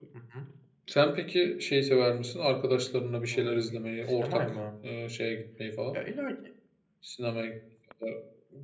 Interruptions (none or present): present